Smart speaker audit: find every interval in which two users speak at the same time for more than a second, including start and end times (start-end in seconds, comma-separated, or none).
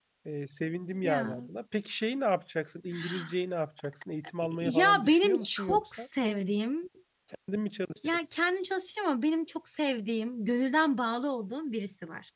4.6-6.0